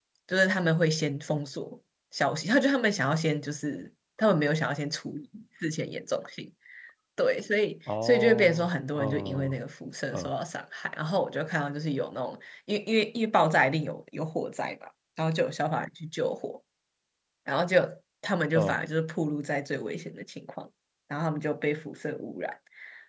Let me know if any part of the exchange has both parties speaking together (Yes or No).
Yes